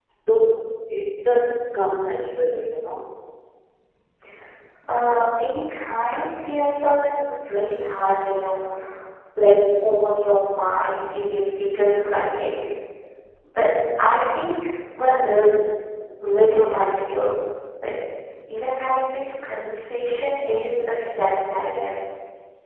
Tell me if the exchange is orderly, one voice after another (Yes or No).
Yes